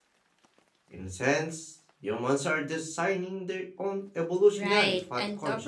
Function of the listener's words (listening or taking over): taking over